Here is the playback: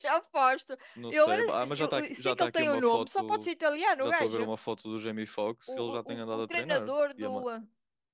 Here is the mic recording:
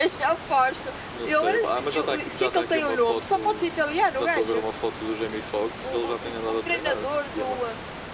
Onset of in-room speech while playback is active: none

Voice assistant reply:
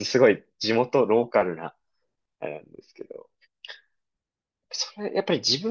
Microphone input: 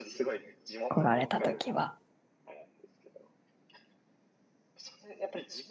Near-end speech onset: 0.9 s

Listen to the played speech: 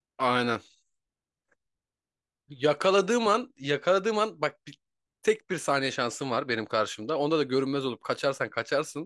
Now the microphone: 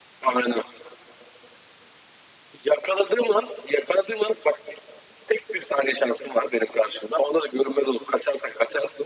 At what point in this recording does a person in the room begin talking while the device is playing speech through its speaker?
none

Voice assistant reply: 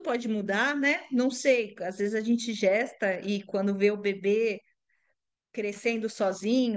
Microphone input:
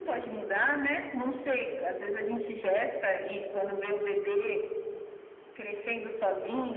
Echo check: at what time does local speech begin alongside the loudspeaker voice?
none

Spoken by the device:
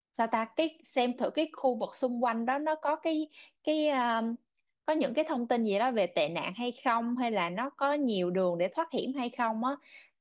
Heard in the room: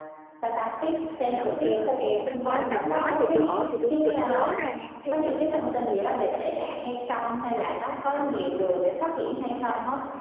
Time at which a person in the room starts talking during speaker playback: 1.1 s

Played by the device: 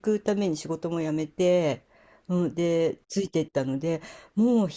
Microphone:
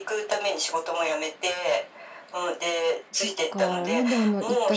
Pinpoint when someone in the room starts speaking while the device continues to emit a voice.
3.1 s

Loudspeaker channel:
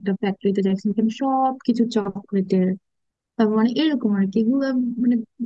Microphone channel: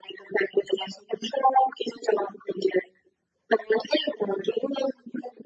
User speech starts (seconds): none

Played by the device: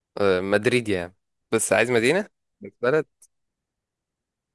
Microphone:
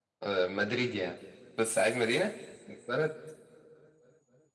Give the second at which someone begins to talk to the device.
none

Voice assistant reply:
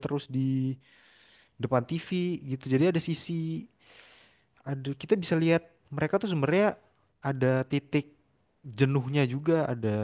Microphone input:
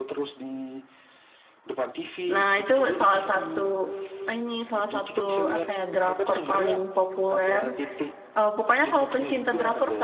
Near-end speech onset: 2.3 s

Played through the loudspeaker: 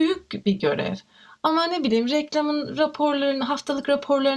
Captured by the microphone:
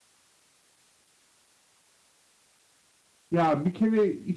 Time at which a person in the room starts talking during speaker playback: 3.3 s

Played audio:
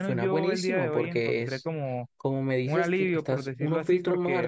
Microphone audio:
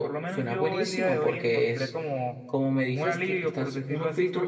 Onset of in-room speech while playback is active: none

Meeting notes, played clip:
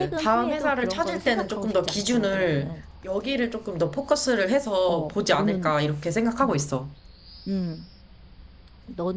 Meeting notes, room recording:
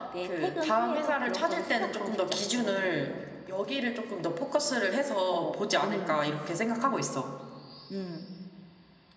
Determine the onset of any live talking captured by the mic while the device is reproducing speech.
none

